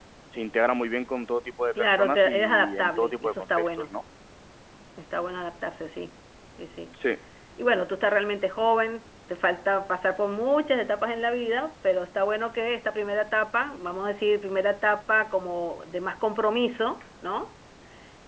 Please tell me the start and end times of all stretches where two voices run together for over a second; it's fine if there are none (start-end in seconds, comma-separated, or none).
1.8-3.9